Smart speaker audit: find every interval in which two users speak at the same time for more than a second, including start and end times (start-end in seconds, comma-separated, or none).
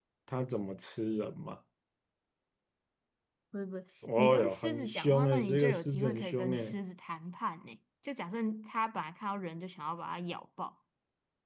4.2-6.8